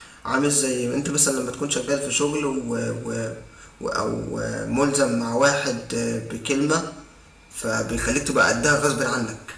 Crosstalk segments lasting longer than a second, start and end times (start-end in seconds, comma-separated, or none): none